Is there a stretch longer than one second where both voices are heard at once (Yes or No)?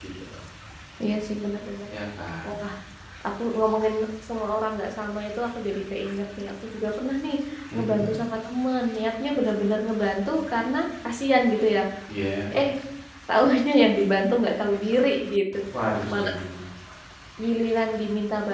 No